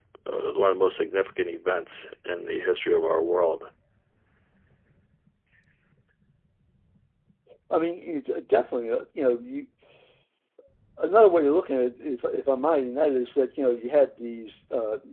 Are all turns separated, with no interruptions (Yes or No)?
Yes